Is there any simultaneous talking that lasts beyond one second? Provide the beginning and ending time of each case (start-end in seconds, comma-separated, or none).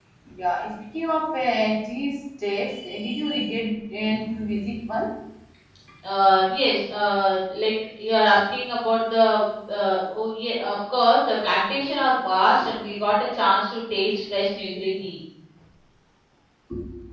none